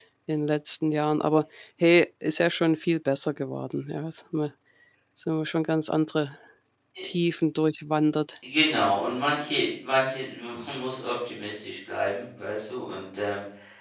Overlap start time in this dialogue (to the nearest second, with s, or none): none